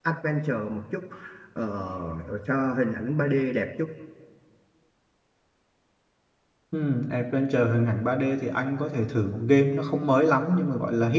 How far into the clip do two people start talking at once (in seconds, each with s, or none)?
none